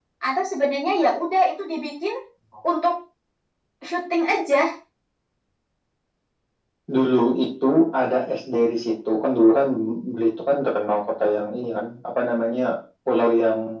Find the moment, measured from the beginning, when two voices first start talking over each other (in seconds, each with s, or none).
none